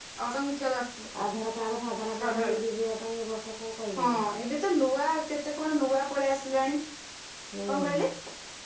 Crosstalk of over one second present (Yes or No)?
No